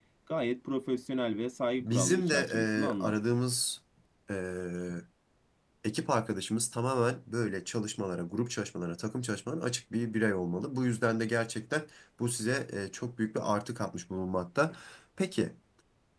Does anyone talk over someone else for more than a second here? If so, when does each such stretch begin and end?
1.8-3.2

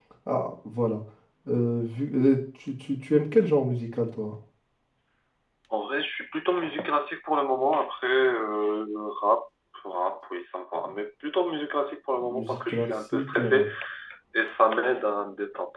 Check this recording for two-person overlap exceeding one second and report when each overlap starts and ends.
12.3-13.7

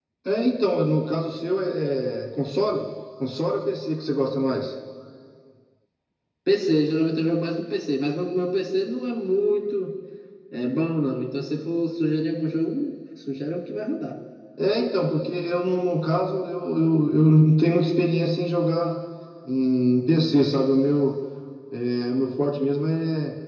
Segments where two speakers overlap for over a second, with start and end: none

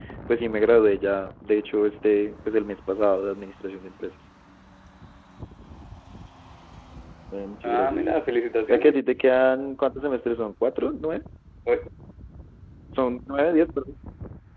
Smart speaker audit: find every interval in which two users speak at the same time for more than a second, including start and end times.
none

